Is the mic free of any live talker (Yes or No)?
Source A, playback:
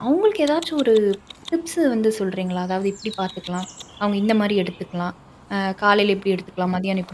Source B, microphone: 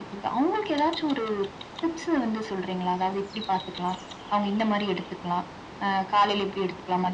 Yes